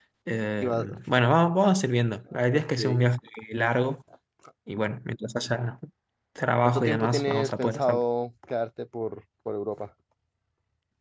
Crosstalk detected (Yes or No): Yes